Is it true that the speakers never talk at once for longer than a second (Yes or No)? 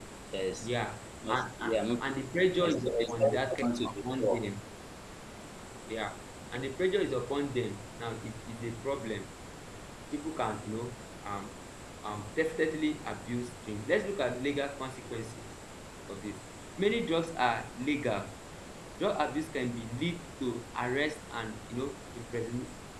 No